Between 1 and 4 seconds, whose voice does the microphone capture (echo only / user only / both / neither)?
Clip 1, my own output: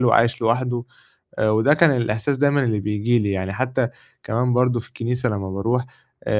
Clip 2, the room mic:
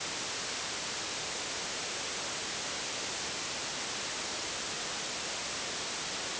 neither